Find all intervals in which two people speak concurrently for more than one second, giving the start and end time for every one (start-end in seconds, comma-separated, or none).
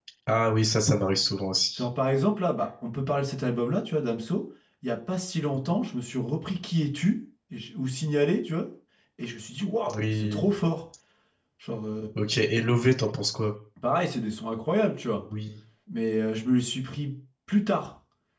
none